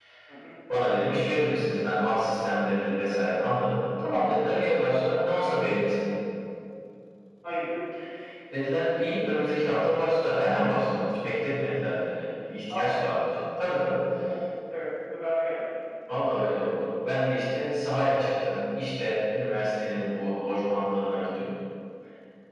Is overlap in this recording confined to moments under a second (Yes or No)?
Yes